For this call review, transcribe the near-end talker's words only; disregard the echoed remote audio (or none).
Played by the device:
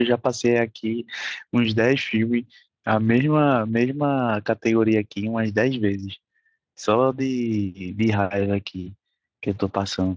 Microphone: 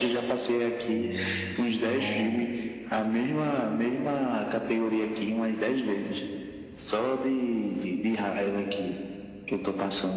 E é sempre bom,